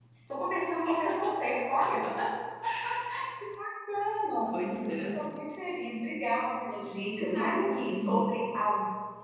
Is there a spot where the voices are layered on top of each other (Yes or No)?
Yes